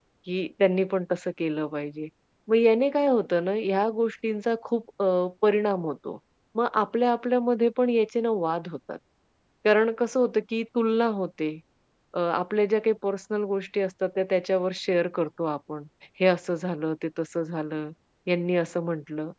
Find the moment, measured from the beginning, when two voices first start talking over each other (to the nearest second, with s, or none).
none